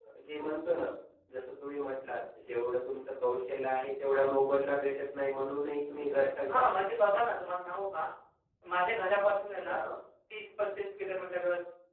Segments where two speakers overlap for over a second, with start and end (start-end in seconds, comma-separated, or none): none